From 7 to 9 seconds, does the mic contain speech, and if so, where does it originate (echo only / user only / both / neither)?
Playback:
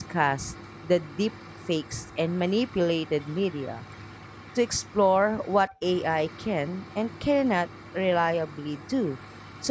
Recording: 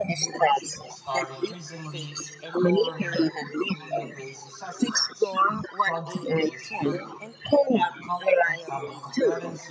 both